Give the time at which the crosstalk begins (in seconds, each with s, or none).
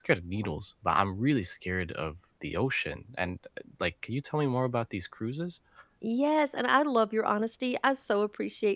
none